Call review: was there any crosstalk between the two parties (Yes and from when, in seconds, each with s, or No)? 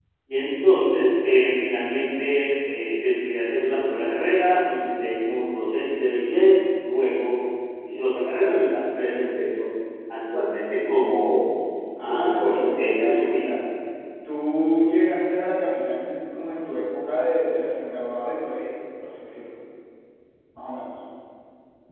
Yes, from 12.1 s